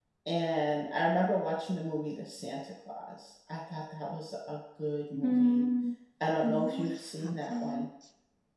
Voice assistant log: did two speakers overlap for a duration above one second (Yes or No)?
Yes